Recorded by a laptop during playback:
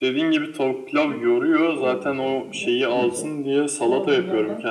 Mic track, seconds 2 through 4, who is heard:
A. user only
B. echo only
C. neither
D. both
D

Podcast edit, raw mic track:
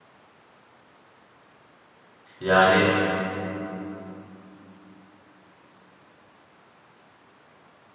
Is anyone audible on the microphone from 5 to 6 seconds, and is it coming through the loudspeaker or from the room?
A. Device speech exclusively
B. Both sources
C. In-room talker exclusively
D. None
D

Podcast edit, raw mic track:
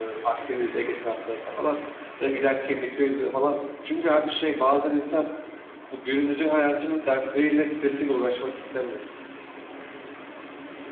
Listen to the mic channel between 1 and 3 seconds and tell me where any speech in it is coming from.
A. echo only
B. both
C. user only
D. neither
A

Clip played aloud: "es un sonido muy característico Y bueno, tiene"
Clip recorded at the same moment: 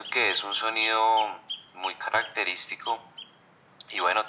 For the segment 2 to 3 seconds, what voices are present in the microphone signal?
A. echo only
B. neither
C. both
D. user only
A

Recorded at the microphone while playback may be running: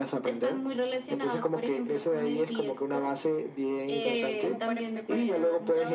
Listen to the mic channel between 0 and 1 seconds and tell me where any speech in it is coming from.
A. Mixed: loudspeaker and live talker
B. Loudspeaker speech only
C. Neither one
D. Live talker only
B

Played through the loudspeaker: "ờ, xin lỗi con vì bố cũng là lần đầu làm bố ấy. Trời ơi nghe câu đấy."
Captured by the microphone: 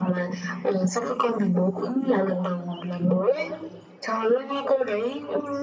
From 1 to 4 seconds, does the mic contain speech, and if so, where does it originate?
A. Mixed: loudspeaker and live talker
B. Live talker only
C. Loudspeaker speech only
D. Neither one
C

